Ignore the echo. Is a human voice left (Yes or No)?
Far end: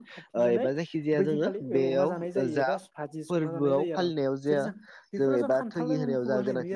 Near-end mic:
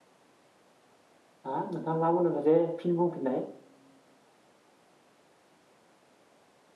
Yes